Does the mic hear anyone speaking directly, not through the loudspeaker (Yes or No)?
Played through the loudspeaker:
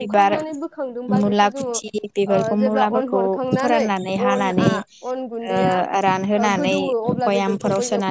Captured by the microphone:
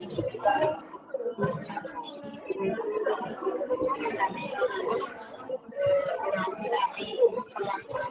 Yes